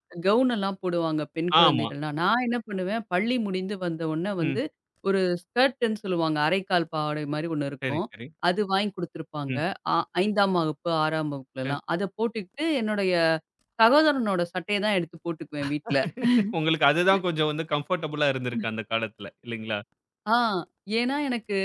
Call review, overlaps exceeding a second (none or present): none